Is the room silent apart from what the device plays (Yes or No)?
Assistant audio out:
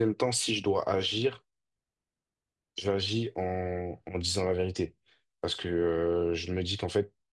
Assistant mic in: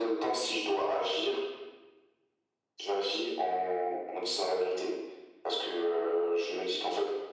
Yes